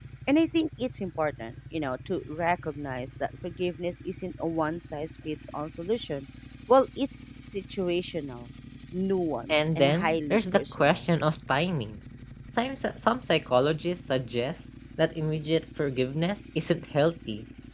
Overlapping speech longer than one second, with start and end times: 9.5-11.0

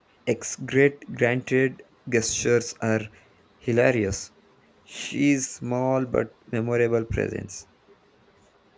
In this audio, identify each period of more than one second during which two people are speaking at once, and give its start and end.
none

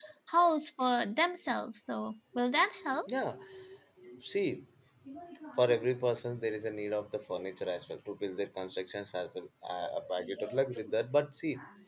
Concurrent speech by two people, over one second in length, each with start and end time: none

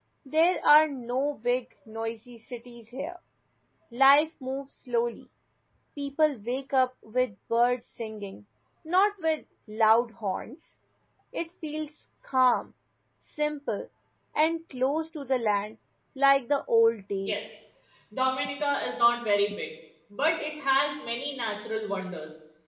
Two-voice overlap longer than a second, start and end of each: none

